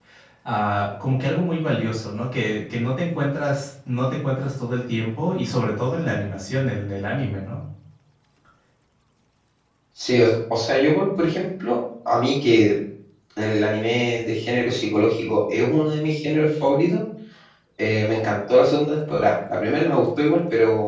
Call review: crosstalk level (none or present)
none